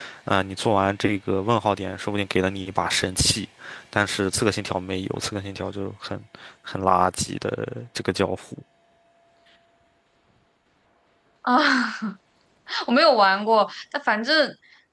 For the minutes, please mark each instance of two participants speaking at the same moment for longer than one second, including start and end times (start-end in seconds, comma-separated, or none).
none